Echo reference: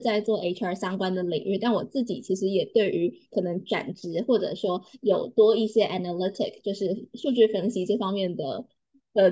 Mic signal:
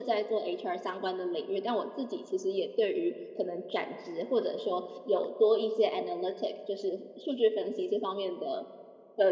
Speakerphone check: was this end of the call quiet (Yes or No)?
Yes